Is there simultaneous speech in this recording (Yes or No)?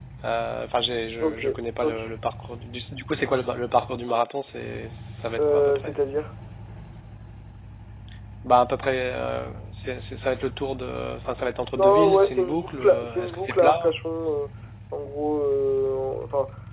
Yes